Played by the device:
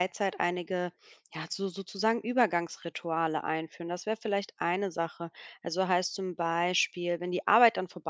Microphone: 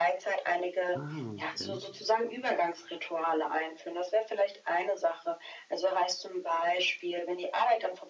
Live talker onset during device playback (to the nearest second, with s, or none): 1 s